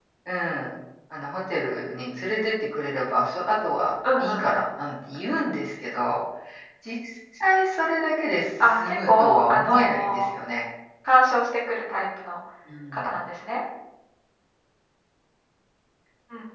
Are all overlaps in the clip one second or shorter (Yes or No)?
No